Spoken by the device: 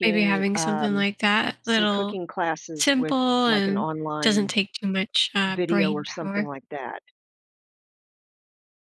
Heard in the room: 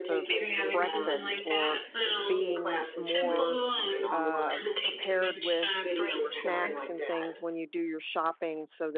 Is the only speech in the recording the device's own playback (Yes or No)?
No